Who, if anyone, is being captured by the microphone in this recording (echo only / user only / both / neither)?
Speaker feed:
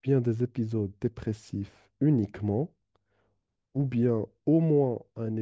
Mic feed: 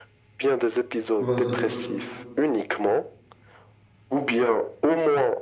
both